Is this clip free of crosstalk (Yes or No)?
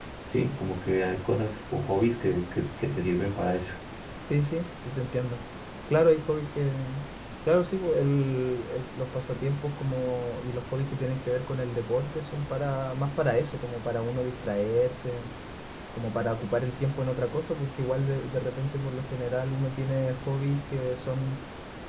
Yes